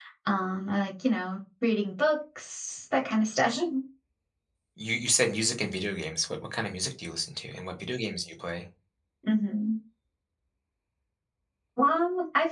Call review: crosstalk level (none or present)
none